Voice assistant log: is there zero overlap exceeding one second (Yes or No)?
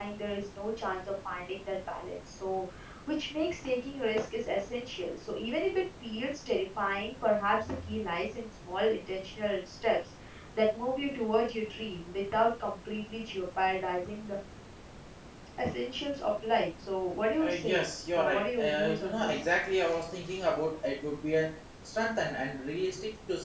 No